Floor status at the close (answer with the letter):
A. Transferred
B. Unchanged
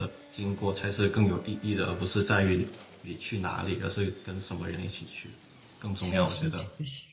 A